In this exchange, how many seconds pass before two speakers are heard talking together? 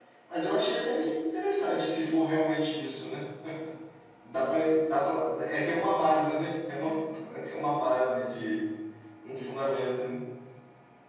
none

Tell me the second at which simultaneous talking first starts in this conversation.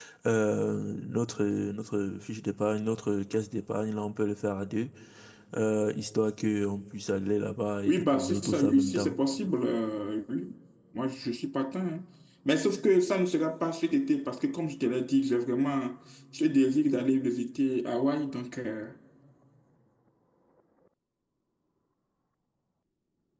7.9 s

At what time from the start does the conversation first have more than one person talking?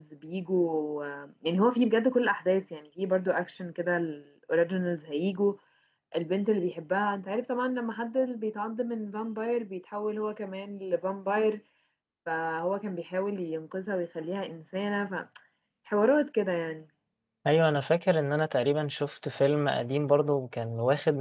none

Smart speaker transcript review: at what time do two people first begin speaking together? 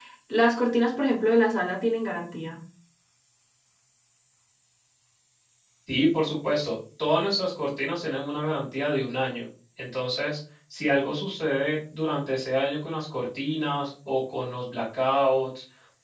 none

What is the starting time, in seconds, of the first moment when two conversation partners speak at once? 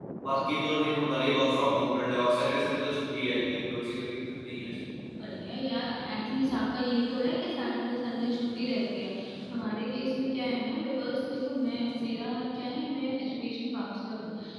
none

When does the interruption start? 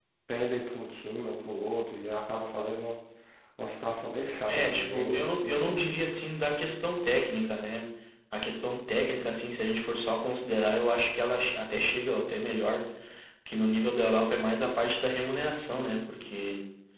4.5 s

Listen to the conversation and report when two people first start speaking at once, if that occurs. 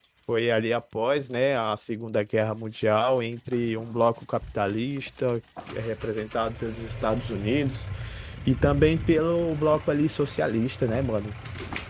none

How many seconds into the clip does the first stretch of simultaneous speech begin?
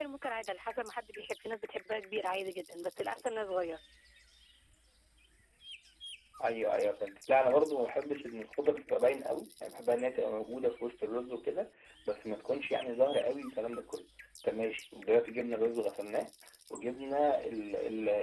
none

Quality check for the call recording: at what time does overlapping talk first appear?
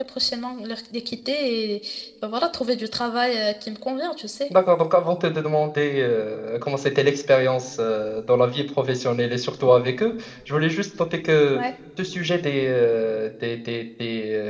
none

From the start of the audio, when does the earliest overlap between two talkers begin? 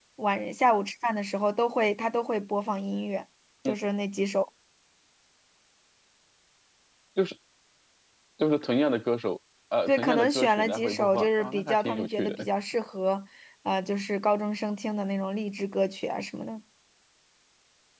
9.9 s

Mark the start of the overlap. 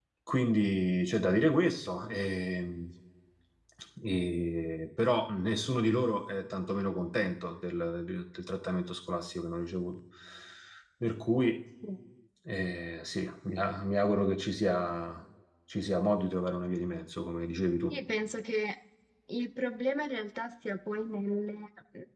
none

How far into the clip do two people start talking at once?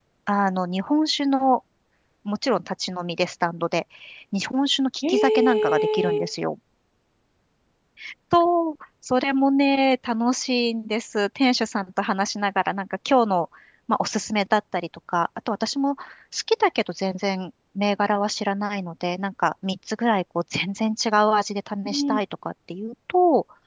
5.1 s

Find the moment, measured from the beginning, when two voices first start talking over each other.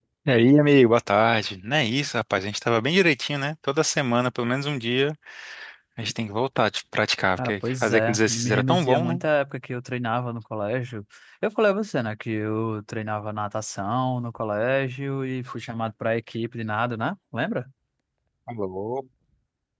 7.4 s

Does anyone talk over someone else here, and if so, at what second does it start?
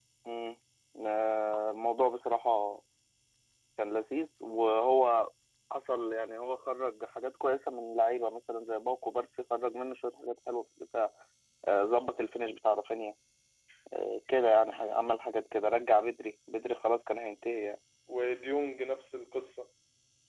none

